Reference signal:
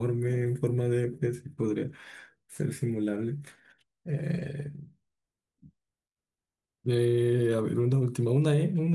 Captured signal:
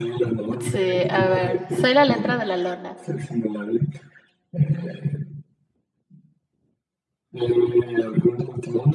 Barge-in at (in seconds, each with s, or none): 0.6 s